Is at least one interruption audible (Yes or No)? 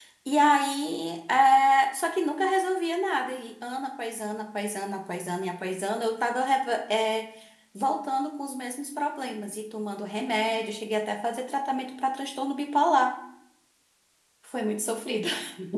No